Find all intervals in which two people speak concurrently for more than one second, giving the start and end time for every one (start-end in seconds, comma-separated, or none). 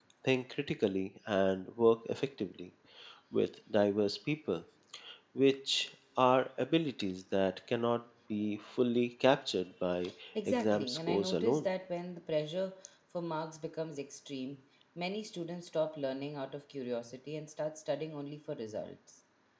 10.5-11.7